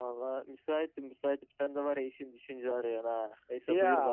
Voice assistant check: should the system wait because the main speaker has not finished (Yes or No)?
No